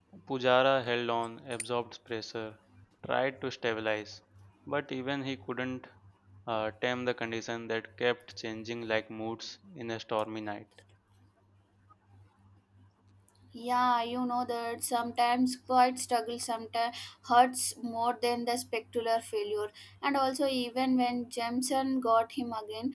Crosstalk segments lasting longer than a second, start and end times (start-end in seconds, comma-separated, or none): none